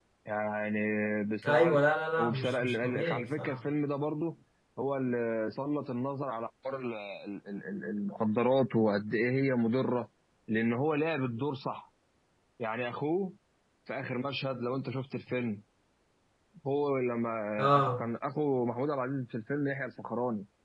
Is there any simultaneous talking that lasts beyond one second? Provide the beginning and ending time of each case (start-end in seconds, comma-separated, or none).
2.2-3.6